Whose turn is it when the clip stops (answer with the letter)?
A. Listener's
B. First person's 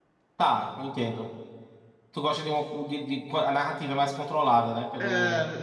A